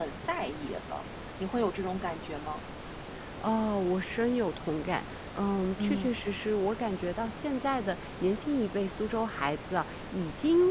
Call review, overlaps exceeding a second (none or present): none